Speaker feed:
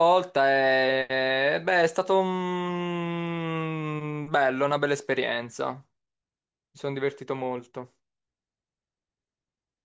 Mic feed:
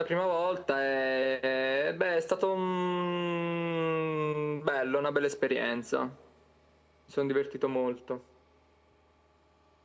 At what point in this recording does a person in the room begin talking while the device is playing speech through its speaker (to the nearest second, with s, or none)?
none